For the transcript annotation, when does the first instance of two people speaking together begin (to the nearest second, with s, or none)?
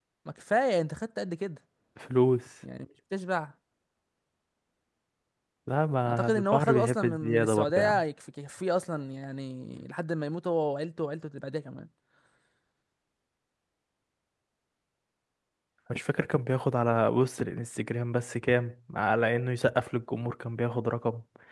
6 s